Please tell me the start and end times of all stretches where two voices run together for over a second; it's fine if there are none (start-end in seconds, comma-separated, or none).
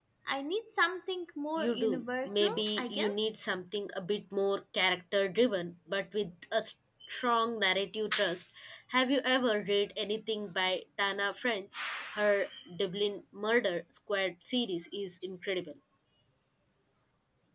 1.6-3.4